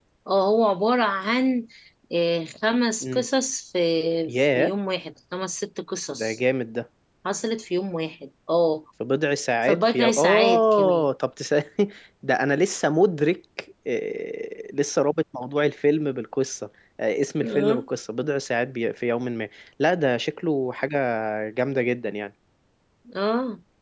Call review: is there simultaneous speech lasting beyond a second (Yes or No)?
Yes